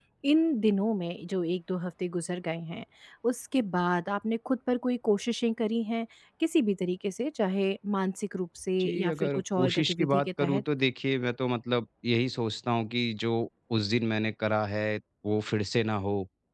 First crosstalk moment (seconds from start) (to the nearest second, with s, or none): 9 s